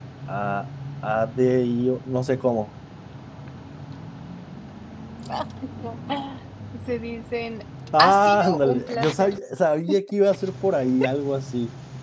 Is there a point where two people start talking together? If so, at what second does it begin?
7.9 s

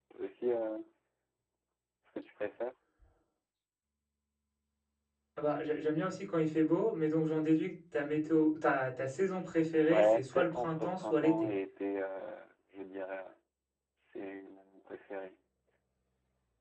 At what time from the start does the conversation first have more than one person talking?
9.9 s

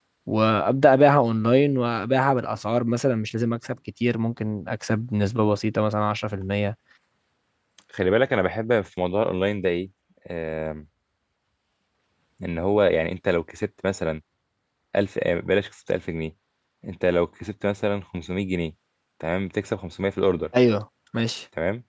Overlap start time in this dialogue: none

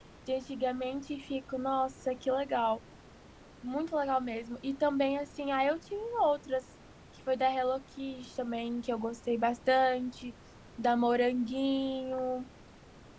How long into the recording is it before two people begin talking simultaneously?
none

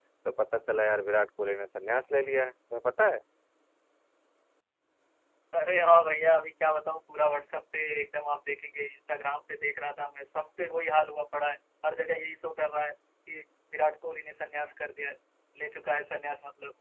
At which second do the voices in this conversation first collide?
none

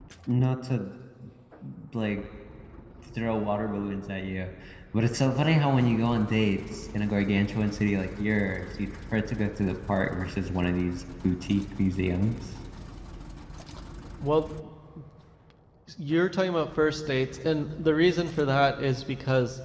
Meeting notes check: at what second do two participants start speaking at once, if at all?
none

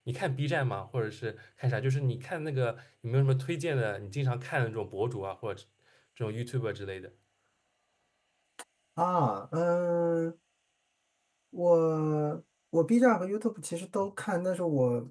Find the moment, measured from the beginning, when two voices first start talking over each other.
none

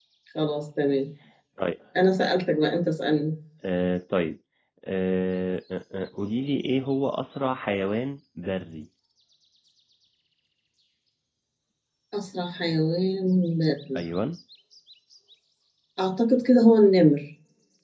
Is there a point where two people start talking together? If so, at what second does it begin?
none

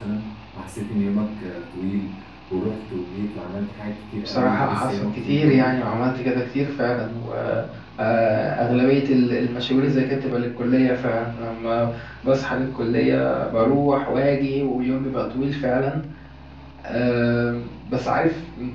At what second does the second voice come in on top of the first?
4.2 s

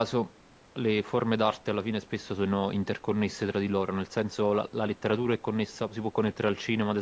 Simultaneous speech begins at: none

